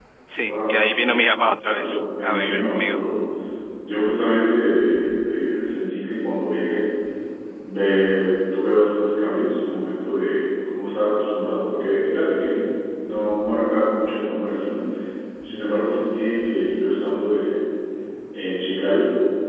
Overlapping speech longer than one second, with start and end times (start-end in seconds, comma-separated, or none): 1.6-3.0